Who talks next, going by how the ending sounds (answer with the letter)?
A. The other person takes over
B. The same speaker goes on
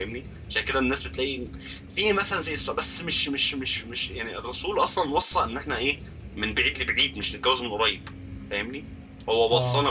B